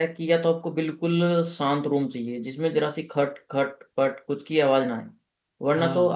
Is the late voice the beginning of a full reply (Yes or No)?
No